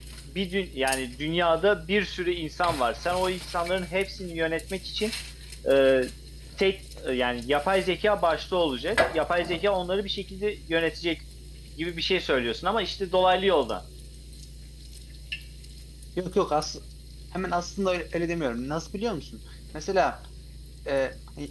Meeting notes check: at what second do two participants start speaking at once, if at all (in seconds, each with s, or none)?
none